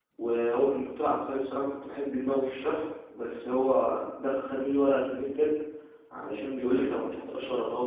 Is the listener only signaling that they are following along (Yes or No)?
Yes